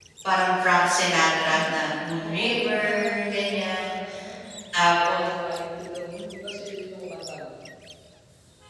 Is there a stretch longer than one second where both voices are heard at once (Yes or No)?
Yes